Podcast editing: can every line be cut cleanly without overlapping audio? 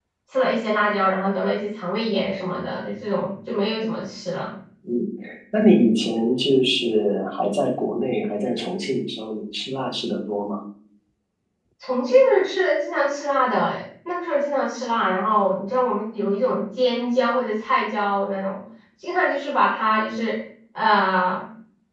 Yes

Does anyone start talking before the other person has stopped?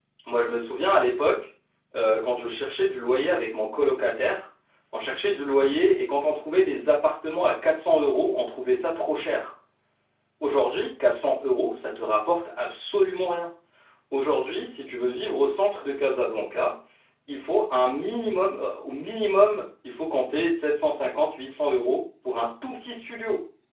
No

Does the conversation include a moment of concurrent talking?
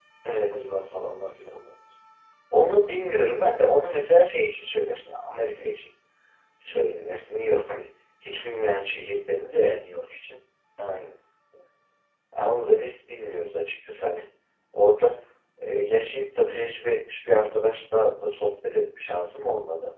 No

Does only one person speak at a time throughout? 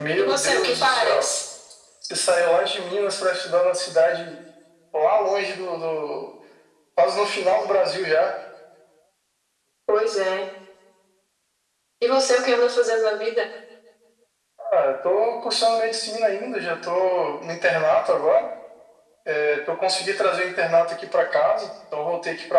No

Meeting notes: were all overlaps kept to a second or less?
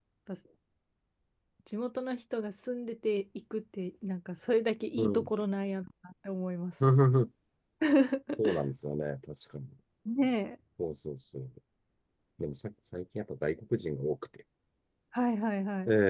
Yes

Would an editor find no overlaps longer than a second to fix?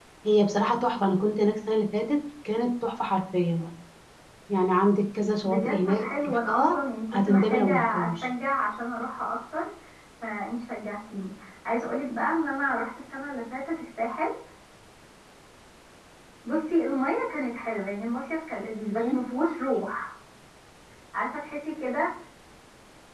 No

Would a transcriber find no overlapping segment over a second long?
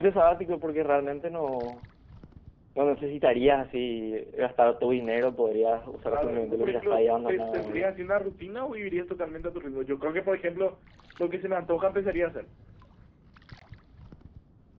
No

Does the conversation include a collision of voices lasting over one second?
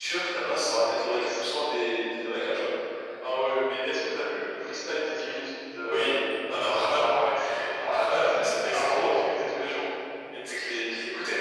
Yes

